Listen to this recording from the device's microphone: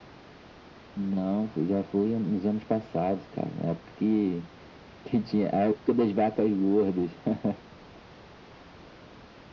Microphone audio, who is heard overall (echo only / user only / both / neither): echo only